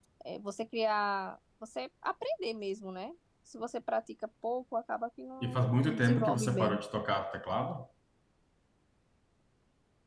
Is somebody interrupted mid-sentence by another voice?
Yes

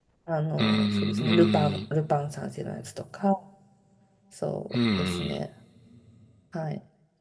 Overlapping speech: Yes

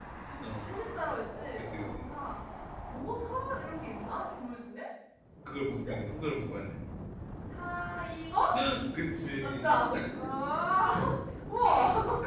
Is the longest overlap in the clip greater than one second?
No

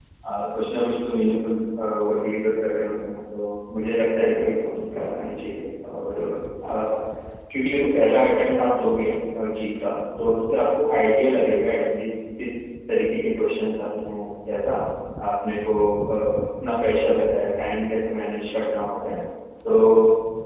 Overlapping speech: No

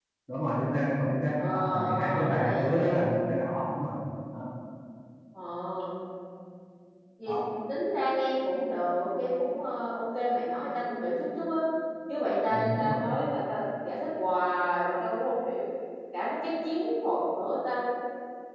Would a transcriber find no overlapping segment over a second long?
No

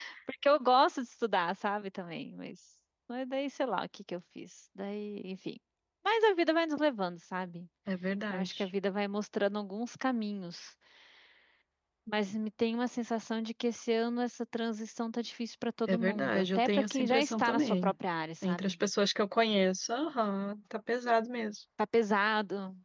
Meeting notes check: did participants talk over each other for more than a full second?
Yes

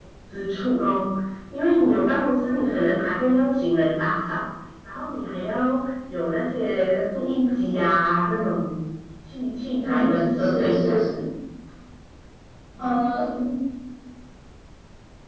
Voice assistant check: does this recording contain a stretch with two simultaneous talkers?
Yes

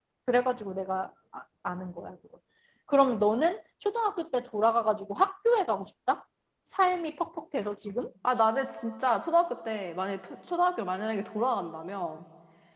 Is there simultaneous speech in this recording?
No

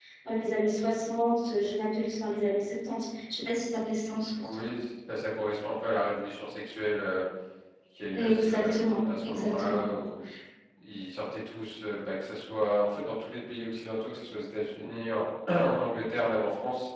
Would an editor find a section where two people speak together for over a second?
Yes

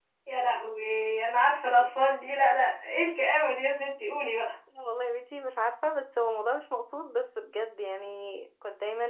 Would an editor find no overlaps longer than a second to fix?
Yes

